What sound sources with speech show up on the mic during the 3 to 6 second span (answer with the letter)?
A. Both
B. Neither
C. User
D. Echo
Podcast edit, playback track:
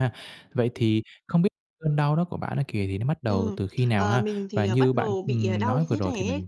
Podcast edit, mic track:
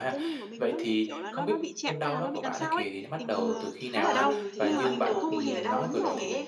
A